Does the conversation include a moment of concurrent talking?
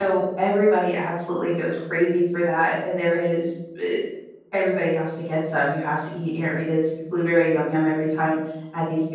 No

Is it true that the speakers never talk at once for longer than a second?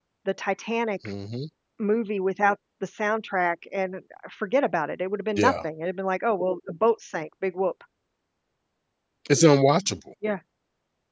Yes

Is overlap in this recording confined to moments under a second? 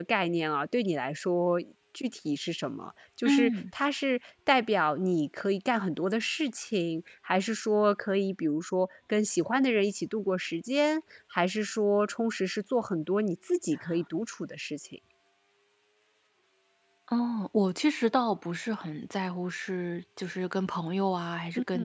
Yes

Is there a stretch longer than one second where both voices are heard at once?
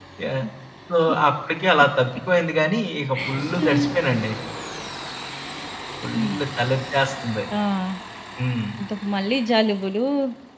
No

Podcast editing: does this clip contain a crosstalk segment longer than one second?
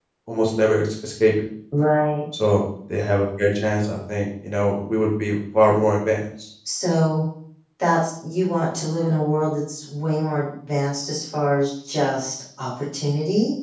No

